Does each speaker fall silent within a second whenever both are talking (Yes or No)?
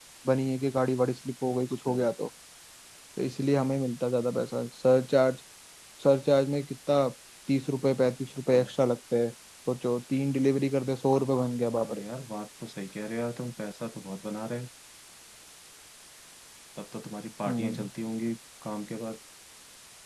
Yes